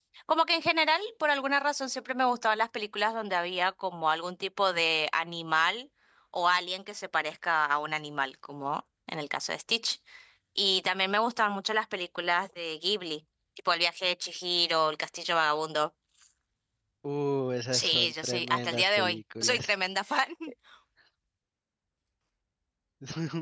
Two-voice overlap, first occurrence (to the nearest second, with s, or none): 18 s